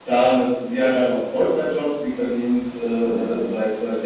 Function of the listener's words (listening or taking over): listening